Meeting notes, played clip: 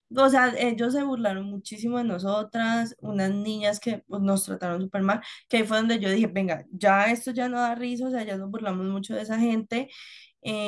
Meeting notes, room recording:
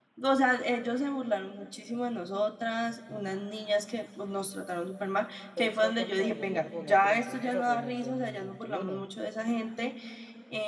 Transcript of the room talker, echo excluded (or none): Petro contra Rodolfo, no, pero entonces eso fue en el dos mil veintiuno